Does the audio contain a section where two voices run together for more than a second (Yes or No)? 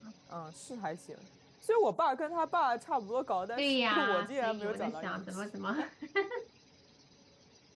Yes